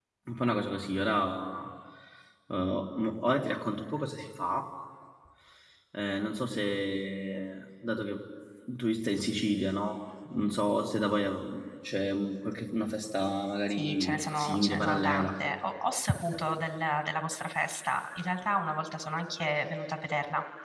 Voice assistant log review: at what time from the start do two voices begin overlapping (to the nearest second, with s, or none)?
14 s